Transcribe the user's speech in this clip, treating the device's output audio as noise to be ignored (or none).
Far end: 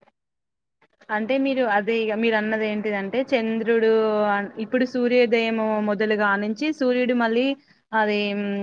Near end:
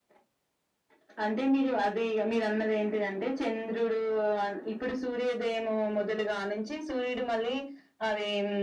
none